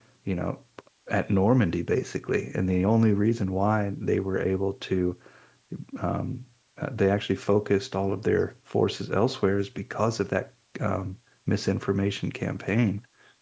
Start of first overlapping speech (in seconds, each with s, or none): none